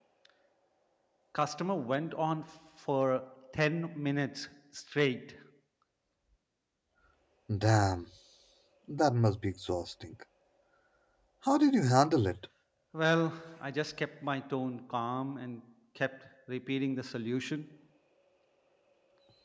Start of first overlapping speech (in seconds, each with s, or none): none